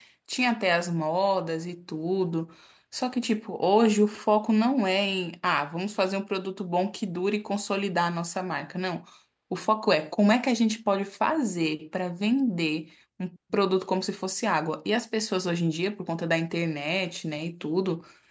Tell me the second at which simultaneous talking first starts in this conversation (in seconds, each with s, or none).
none